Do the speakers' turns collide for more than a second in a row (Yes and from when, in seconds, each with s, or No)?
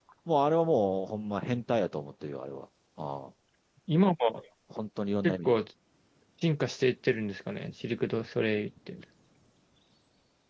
No